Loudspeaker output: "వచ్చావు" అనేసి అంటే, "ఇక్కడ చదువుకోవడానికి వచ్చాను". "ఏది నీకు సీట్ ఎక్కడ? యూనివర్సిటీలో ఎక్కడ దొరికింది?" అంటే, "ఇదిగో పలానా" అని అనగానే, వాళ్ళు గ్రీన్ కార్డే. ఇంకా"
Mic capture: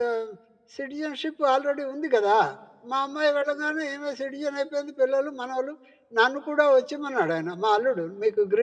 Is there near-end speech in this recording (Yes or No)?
Yes